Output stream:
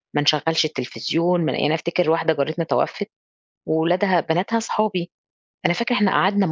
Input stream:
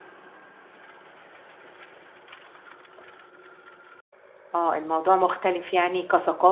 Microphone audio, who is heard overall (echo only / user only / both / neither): user only